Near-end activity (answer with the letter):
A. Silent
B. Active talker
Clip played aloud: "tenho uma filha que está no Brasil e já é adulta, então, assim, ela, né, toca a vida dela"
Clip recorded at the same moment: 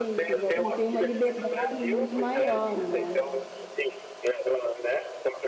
B